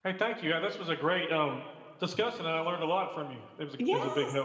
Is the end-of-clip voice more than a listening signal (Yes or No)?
Yes